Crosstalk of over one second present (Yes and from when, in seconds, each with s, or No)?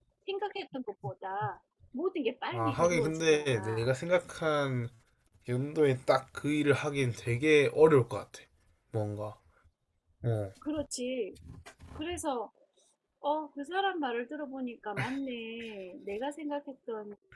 Yes, from 2.5 s